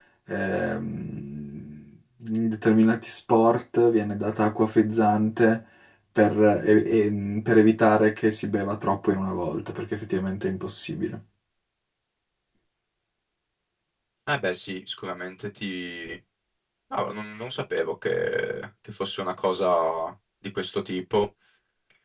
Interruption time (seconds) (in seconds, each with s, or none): none